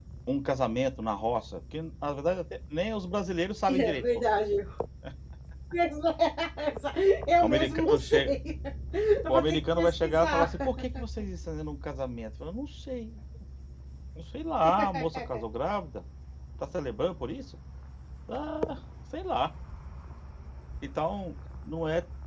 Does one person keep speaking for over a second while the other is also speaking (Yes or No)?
Yes